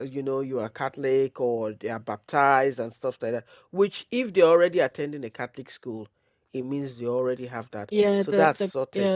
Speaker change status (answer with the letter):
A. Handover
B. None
A